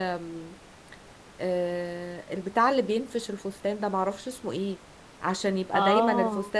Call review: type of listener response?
listening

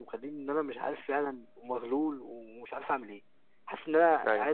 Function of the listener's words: listening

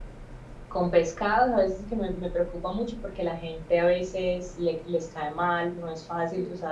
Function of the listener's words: listening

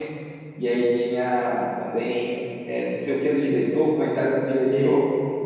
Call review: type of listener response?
taking over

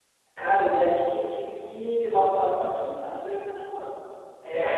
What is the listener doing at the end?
listening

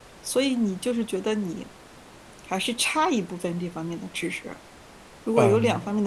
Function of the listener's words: listening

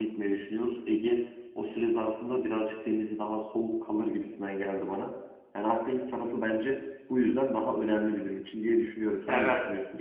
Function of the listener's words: taking over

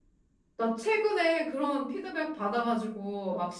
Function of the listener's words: listening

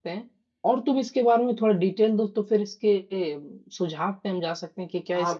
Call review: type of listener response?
taking over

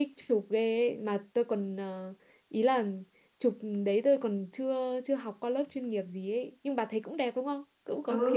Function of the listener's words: taking over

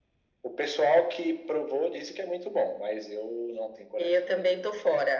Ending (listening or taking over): taking over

